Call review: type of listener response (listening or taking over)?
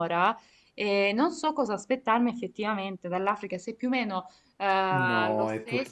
taking over